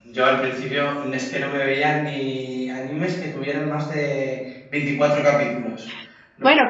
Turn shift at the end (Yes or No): Yes